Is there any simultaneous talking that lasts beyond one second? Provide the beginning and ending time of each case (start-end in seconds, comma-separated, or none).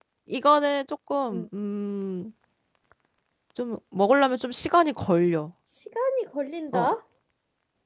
none